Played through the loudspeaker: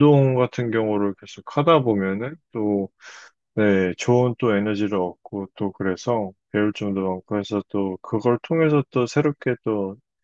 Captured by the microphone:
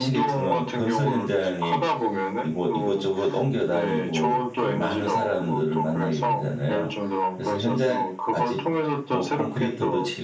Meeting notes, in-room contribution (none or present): present